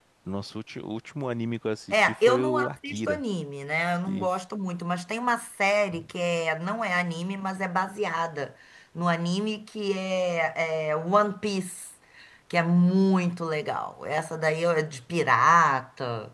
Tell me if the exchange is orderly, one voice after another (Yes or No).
No